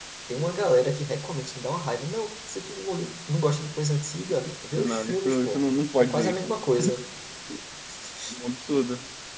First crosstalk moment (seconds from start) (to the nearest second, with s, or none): 5 s